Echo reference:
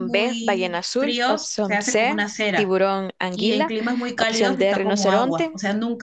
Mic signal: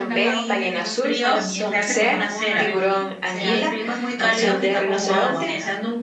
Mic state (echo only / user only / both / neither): both